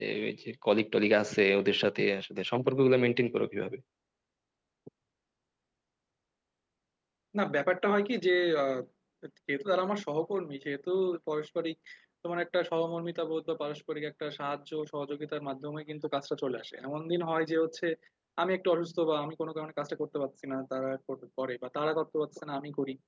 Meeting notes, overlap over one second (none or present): none